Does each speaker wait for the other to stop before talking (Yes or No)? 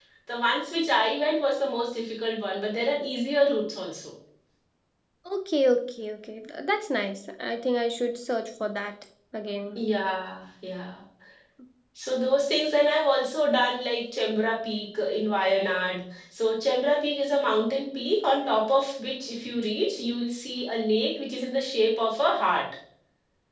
Yes